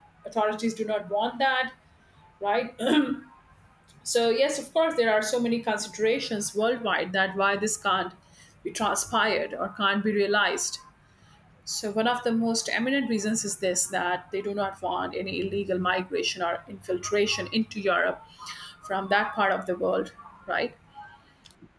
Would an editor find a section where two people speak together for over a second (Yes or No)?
No